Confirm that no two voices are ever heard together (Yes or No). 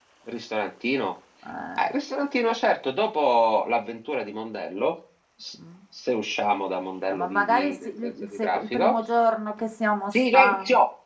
No